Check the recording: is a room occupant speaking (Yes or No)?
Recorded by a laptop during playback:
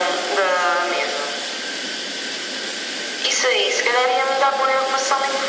No